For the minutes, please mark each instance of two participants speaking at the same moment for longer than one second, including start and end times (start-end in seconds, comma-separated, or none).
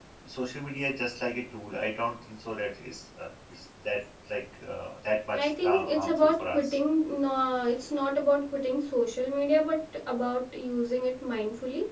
5.3-6.8